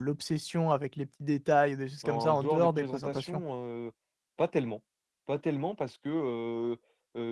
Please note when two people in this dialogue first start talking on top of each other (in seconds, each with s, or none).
2.0 s